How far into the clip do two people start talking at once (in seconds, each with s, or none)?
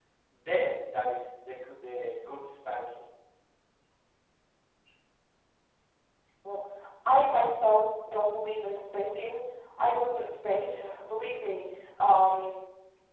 none